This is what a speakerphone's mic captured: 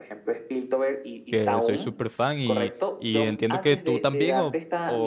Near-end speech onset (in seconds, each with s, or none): 1.3 s